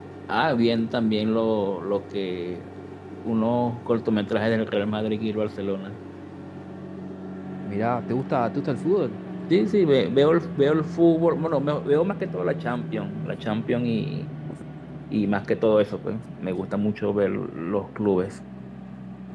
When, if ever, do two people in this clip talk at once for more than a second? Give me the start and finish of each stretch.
none

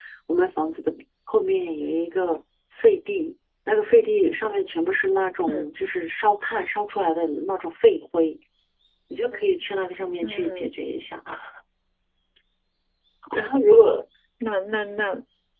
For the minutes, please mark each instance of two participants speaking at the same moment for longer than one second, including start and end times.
none

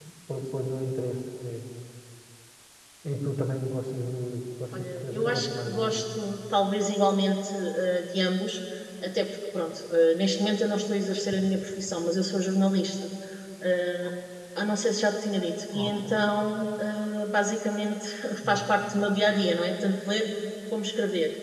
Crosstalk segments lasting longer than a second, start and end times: 4.7-6.0

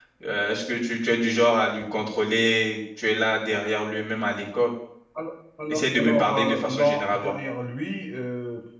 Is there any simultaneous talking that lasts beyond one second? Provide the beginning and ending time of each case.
5.7-7.3

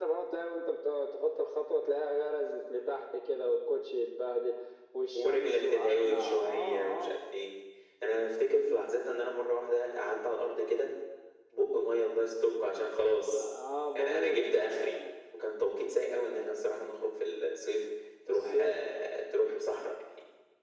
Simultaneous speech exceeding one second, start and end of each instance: 5.1-7.1

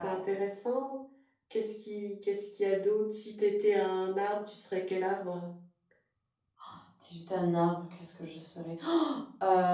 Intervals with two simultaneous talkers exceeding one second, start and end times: none

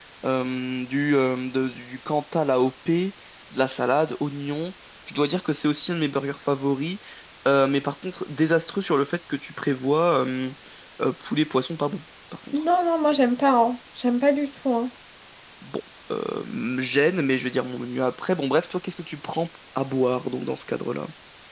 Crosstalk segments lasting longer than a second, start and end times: none

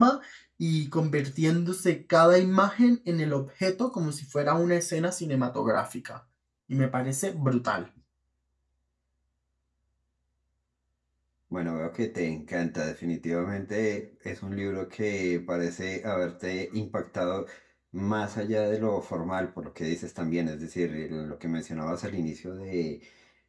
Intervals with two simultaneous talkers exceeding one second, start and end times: none

